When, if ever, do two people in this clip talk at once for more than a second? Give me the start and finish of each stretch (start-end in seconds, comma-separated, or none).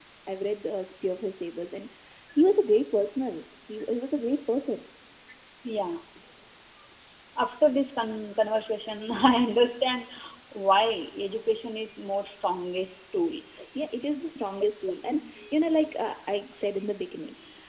none